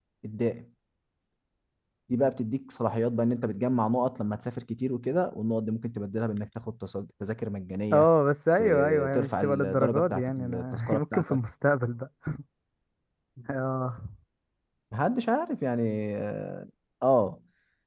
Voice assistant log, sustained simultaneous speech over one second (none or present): present